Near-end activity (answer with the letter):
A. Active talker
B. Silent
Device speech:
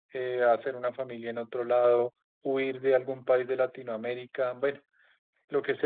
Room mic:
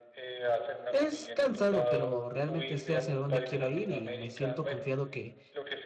A